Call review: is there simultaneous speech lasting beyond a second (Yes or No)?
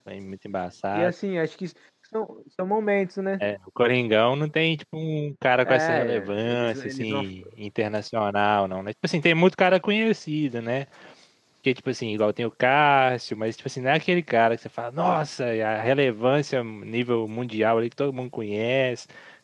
Yes